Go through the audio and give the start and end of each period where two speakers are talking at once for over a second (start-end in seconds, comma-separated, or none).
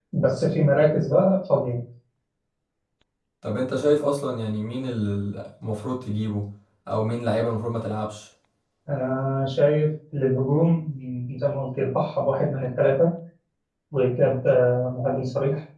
none